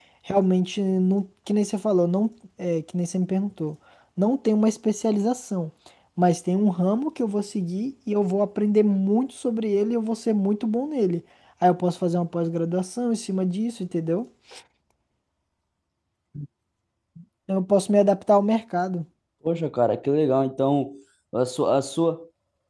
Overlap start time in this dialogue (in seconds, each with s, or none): none